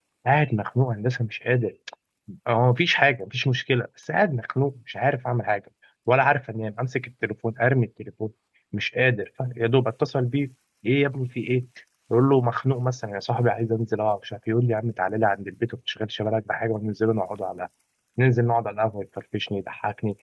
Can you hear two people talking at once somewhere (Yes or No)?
No